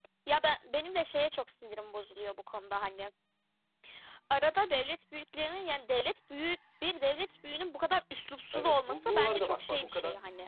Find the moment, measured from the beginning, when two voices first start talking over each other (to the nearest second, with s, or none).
9 s